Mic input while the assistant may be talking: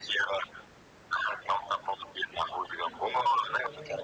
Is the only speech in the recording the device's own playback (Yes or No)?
No